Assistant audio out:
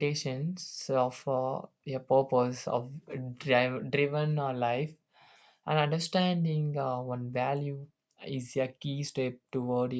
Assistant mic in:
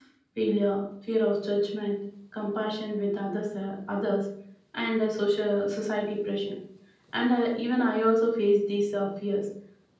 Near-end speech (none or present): present